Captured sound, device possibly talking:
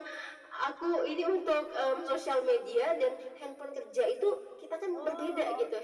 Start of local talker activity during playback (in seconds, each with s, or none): 4.9 s